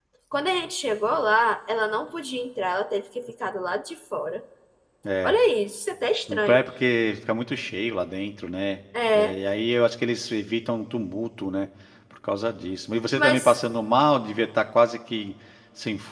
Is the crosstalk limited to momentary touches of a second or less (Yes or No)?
Yes